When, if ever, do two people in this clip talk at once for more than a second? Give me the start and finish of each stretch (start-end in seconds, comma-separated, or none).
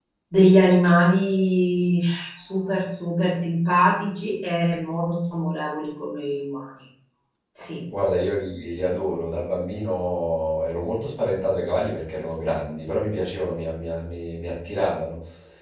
none